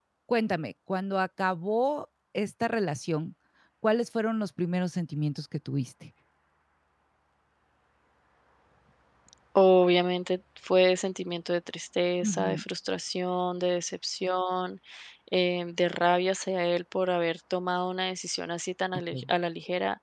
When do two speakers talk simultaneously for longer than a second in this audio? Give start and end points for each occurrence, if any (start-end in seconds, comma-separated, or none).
none